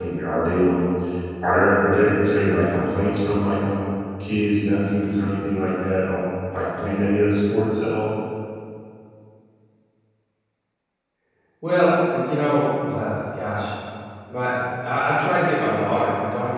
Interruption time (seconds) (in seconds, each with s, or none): none